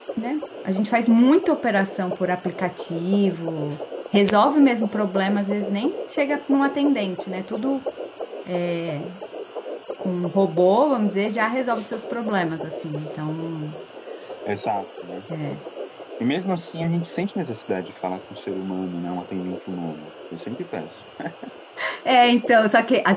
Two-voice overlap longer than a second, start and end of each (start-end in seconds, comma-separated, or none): none